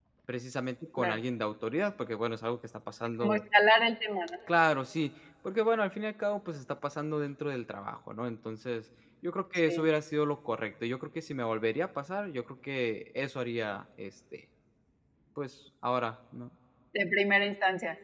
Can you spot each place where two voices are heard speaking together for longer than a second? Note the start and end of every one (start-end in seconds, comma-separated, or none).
none